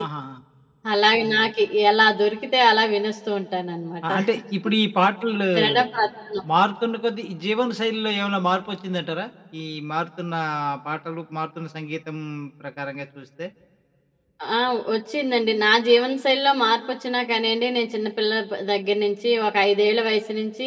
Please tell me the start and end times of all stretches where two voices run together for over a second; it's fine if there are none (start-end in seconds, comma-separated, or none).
none